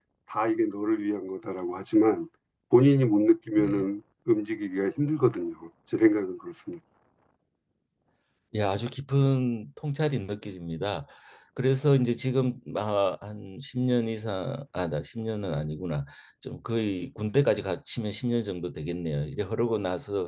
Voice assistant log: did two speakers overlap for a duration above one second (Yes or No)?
No